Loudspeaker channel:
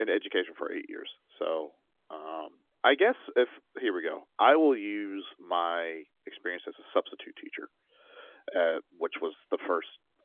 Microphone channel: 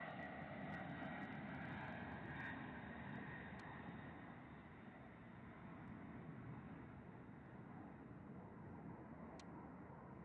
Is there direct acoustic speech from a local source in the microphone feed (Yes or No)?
No